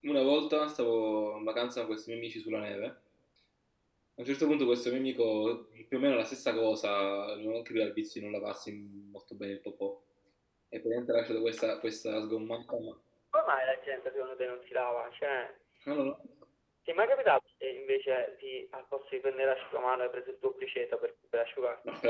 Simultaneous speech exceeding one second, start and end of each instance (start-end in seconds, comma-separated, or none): none